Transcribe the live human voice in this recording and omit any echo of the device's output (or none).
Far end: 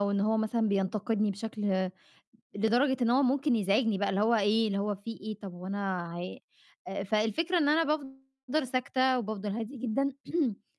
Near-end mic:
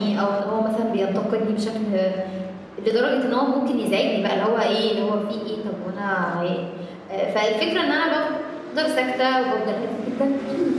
none